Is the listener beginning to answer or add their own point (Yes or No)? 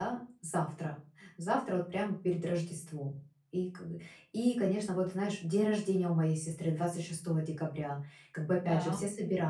No